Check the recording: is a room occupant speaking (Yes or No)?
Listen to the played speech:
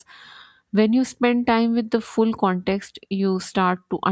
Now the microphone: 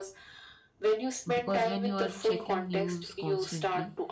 Yes